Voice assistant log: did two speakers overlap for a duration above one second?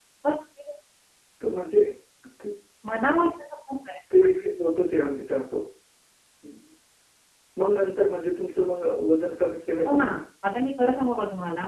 No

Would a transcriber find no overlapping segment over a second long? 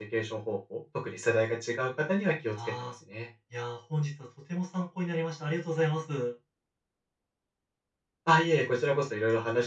Yes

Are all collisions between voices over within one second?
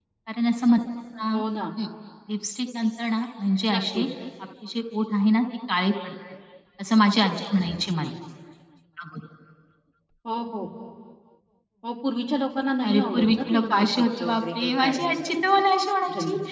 No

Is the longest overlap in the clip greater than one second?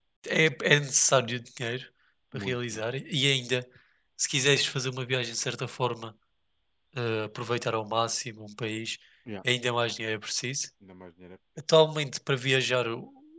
No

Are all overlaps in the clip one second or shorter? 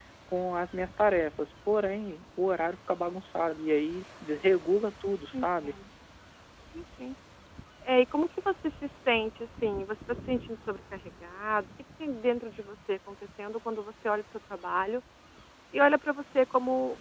Yes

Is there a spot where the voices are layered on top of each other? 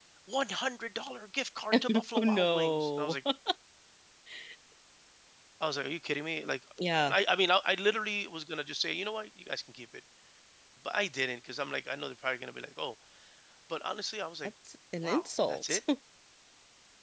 Yes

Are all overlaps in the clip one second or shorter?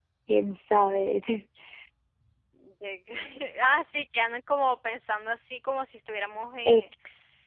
Yes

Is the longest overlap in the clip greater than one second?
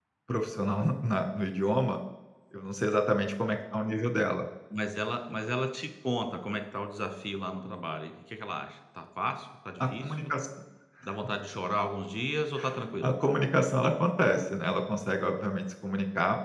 No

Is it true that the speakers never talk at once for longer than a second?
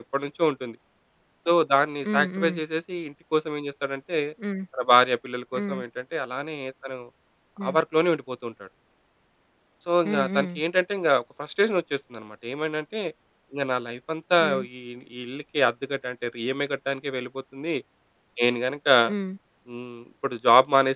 Yes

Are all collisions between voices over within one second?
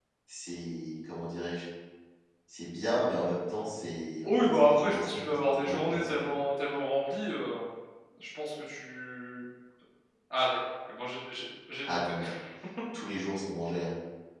No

